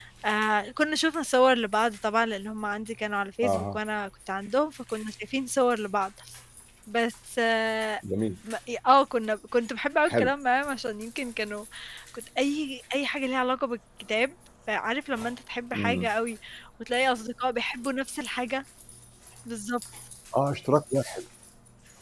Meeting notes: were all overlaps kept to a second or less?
Yes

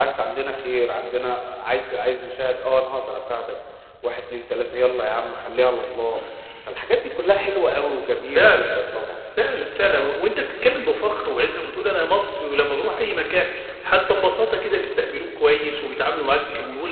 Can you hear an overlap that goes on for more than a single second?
No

